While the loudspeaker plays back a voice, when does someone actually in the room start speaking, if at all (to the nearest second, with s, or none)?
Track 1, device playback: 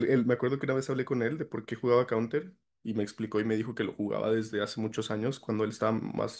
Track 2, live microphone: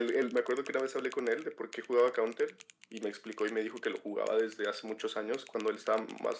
none